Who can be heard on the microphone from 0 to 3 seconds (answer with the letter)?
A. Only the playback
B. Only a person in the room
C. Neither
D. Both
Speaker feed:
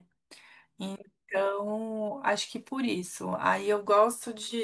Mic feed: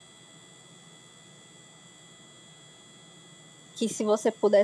C